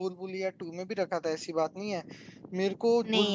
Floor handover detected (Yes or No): No